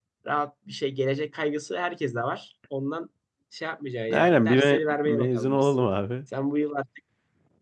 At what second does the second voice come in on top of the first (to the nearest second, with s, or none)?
4 s